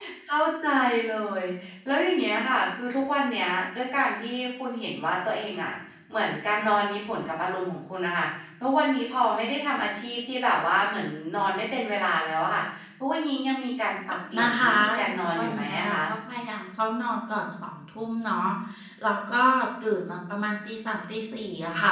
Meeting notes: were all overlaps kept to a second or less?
No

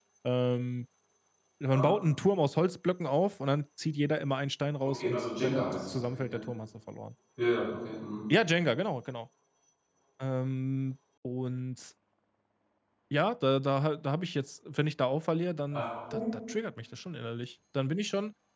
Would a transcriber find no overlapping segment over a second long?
No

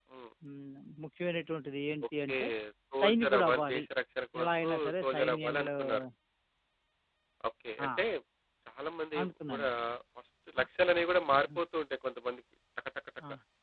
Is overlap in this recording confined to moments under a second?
No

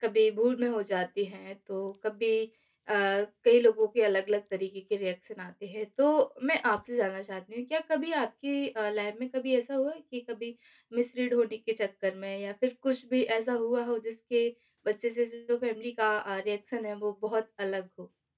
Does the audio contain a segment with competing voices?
No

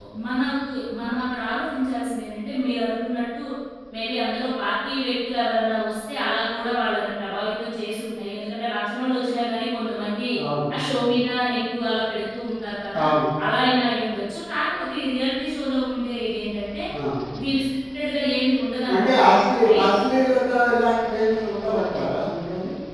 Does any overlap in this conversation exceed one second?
No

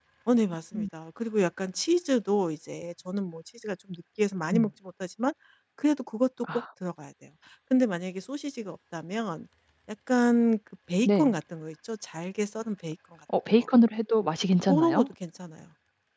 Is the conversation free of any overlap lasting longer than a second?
Yes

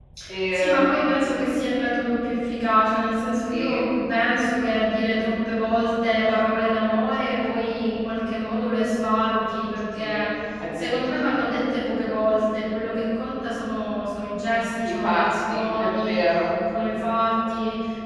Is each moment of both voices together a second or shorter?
No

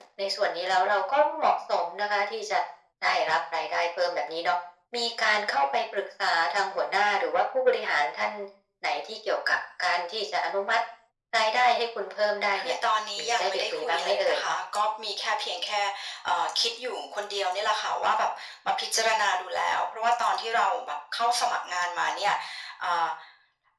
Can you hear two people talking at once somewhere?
Yes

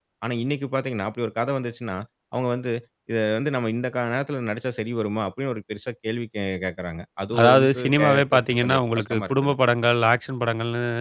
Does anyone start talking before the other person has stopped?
Yes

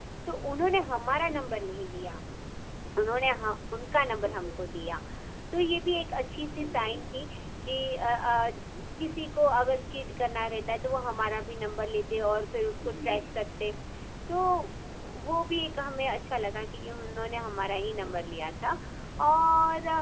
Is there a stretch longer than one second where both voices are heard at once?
No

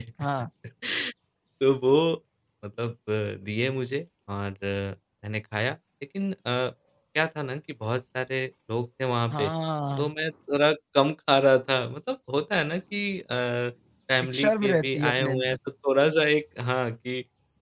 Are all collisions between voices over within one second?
No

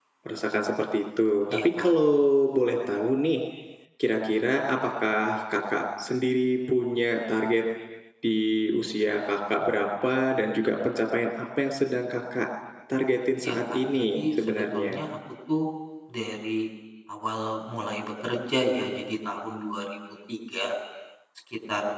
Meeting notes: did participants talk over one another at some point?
Yes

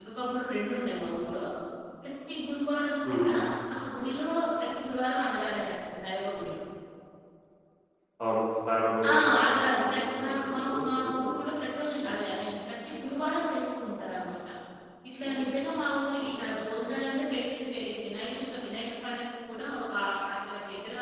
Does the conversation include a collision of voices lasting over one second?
Yes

